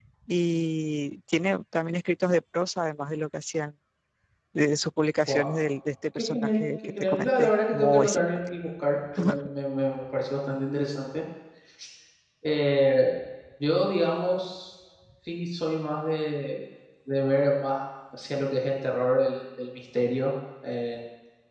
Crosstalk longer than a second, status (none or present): present